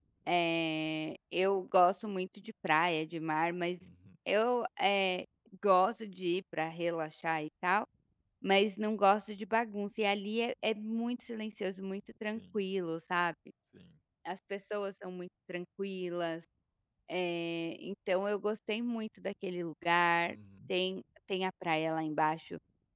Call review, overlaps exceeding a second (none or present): none